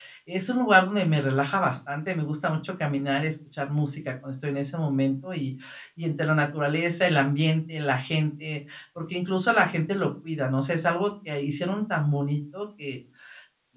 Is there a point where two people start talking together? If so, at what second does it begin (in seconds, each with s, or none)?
none